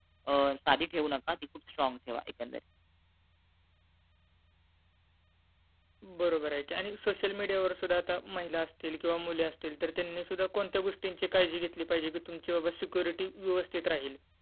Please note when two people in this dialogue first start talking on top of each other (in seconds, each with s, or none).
none